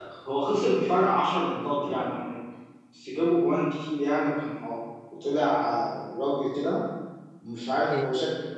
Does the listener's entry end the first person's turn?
No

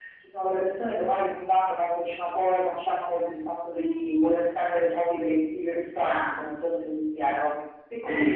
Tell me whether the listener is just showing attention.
No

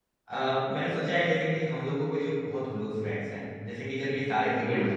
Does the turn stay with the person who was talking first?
Yes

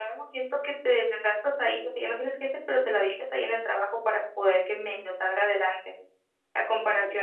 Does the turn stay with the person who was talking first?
Yes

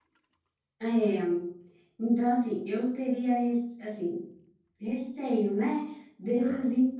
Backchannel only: Yes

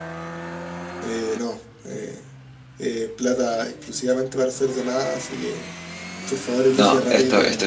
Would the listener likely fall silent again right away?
No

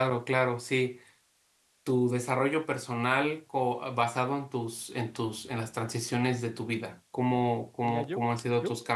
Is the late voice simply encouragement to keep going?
No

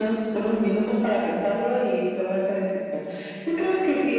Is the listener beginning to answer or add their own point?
No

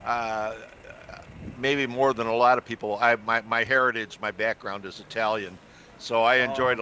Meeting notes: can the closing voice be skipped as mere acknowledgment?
Yes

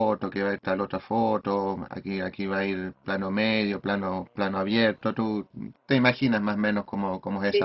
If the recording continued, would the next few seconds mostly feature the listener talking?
Yes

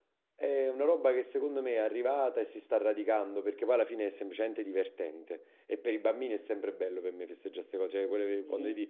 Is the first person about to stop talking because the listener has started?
No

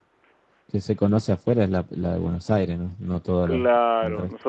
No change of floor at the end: No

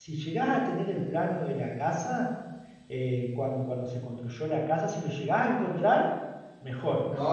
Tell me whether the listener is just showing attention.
No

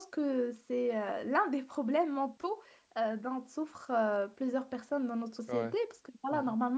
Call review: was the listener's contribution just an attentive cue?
Yes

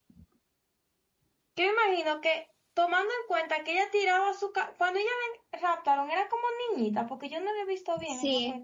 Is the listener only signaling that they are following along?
No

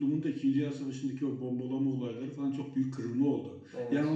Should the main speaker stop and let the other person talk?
No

